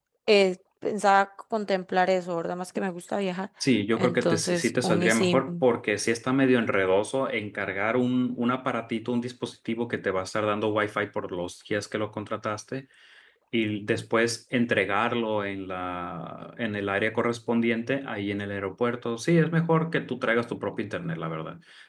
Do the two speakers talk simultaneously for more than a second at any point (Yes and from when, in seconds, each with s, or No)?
Yes, from 4.0 s